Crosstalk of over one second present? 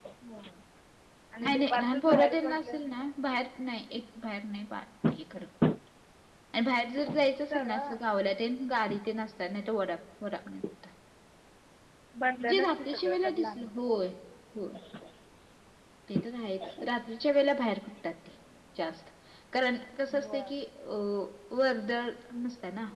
Yes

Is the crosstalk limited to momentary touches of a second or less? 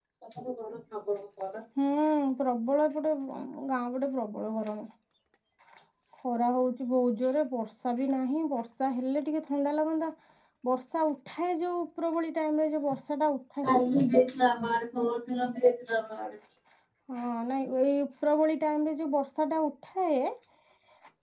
Yes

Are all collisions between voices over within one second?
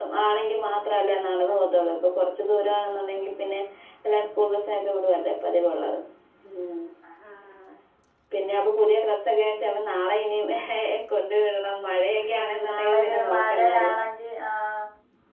No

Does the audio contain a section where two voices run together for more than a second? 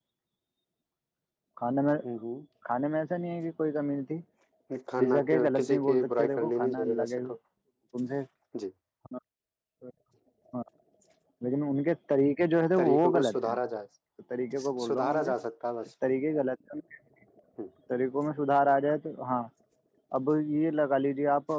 Yes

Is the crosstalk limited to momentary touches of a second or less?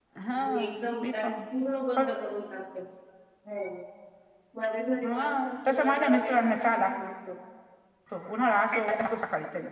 No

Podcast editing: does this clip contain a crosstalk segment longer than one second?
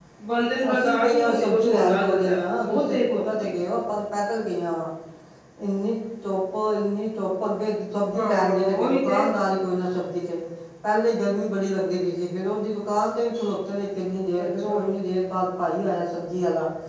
Yes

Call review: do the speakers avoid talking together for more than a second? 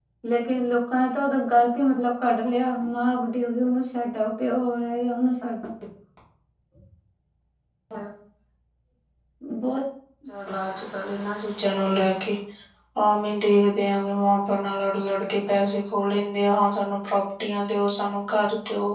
Yes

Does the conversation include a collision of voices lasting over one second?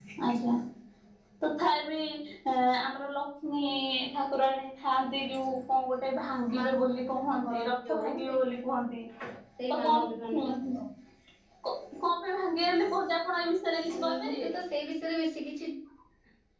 Yes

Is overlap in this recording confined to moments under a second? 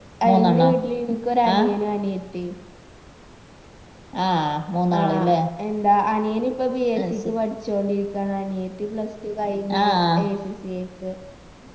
Yes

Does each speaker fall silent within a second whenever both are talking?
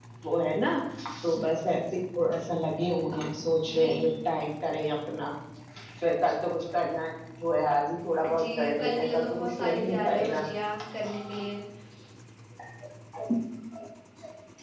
No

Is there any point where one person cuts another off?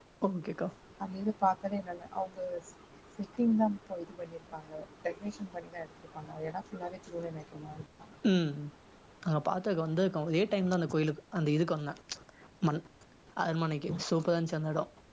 No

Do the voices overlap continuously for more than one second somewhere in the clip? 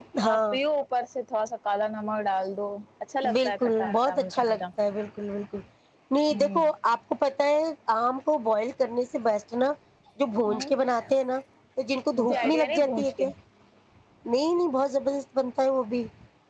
Yes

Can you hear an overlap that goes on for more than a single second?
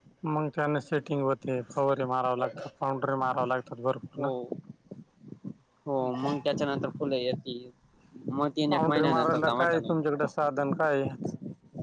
Yes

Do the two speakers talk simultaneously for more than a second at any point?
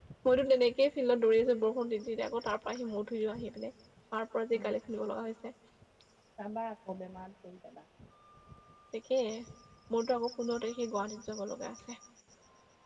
No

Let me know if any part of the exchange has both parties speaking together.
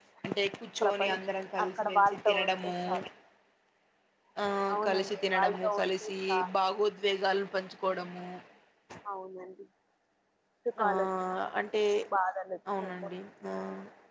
Yes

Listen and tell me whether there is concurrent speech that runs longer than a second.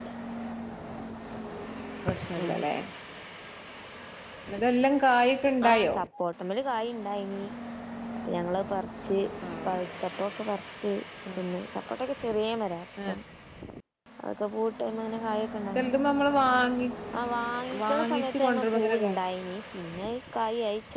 Yes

